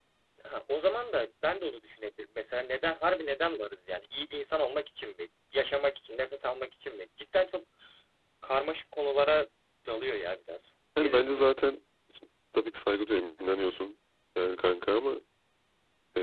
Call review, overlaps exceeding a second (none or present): none